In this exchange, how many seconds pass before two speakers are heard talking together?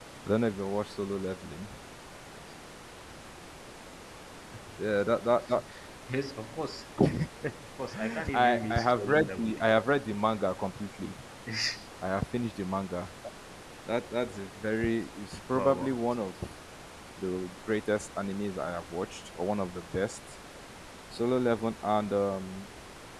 8 s

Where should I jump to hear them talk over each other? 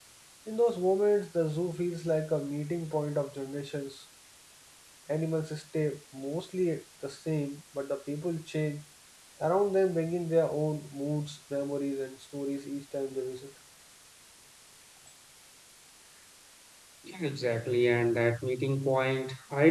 none

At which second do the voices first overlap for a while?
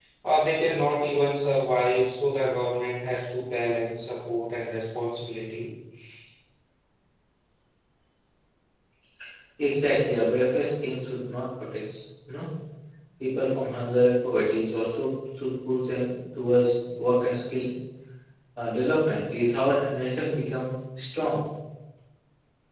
none

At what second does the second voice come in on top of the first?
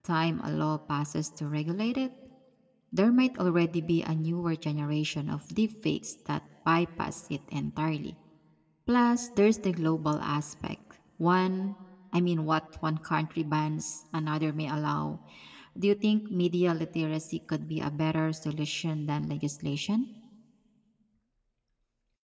none

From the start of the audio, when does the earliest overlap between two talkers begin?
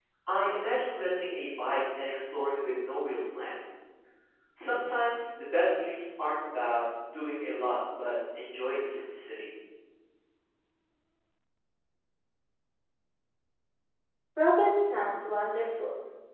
none

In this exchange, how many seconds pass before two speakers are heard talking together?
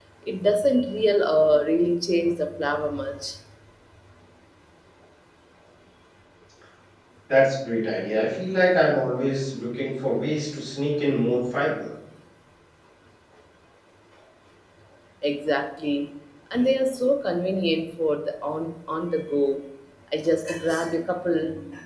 none

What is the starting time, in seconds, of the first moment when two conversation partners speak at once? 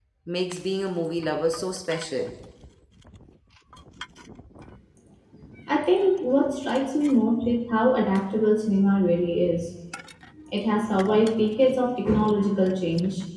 none

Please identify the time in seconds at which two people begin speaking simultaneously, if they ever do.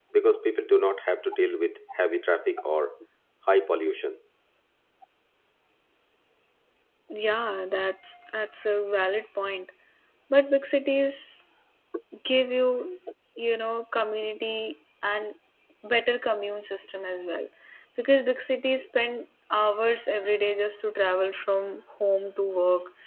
none

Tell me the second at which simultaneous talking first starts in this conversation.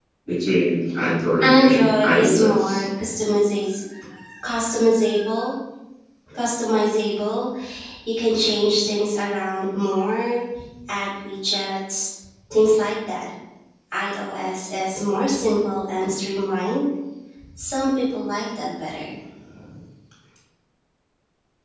1 s

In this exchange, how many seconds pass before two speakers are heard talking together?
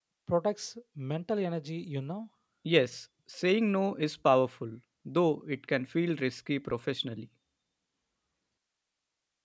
none

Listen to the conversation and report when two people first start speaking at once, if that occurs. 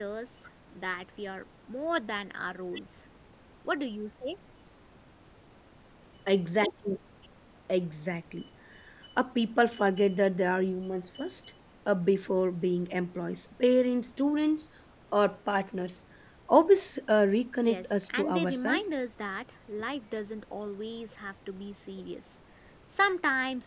18 s

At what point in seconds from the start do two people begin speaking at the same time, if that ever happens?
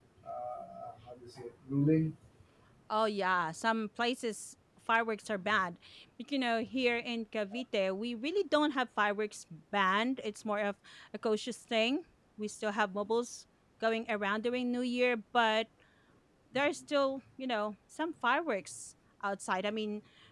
none

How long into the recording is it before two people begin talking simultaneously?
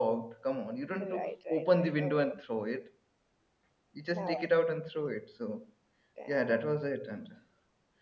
1 s

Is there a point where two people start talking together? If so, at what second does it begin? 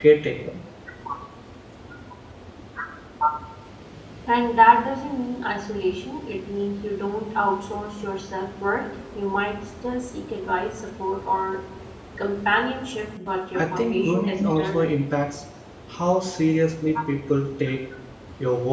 14 s

